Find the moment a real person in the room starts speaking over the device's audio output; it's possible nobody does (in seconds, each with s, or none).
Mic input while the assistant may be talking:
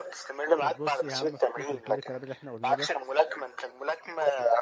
0.6 s